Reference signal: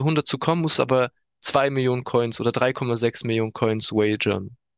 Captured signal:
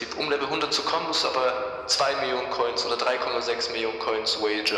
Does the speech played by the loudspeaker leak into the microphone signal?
Yes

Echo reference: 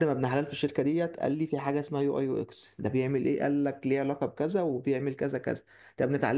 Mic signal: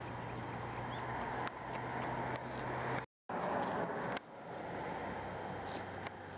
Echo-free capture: Yes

